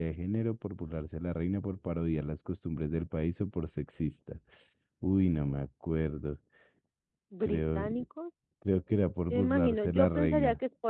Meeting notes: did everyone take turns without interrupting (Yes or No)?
No